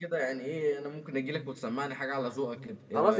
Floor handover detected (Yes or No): Yes